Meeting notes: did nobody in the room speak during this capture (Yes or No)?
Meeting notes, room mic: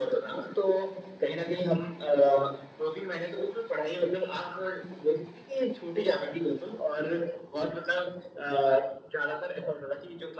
Yes